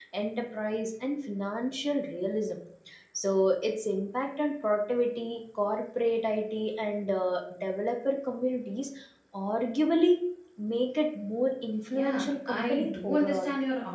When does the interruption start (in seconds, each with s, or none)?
11.9 s